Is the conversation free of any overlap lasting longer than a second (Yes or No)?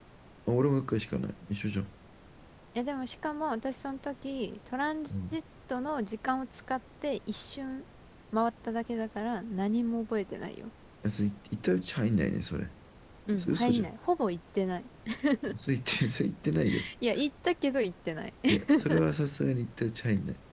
Yes